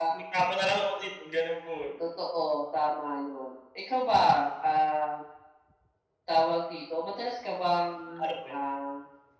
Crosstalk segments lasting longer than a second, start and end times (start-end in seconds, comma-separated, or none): none